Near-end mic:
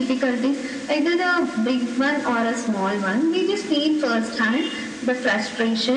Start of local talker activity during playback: none

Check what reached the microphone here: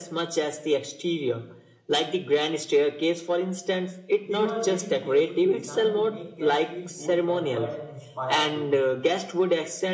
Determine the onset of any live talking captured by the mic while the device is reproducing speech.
4 s

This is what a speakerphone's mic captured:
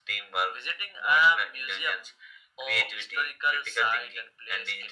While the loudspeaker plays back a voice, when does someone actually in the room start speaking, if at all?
none

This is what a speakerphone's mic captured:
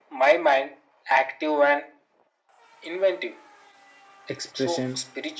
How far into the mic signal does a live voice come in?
4 s

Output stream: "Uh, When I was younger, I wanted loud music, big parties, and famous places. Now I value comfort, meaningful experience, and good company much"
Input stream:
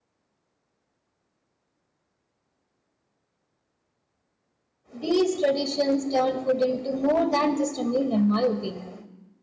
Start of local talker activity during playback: 5 s

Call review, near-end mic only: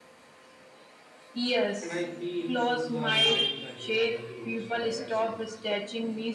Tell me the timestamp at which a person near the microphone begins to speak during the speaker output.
2 s

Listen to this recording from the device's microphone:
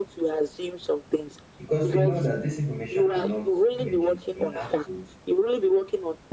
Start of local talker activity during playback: 2 s

